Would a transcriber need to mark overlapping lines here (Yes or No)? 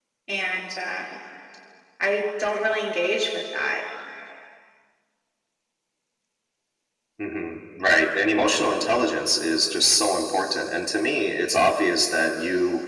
No